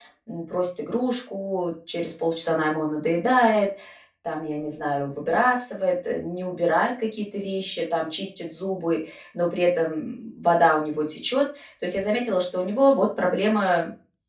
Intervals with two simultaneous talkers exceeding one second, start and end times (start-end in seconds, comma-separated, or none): none